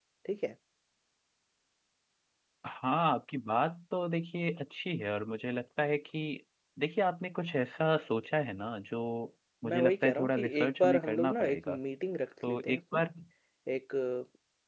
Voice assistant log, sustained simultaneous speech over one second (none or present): present